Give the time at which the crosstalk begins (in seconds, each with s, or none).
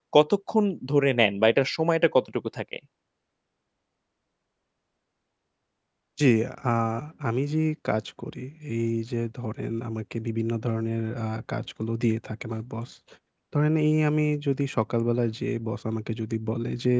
none